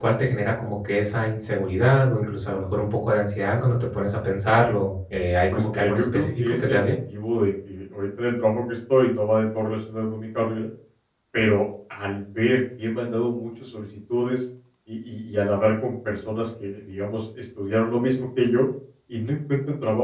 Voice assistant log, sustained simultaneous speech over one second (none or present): present